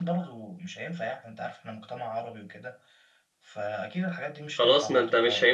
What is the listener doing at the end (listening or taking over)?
taking over